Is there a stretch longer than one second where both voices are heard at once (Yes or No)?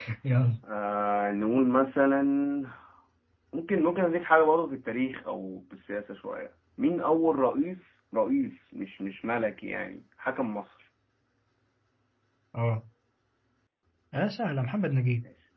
No